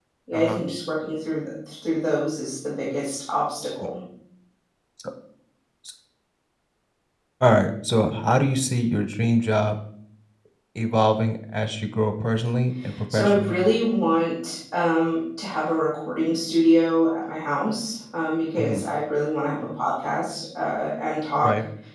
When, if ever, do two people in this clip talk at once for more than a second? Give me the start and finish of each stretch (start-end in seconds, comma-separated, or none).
none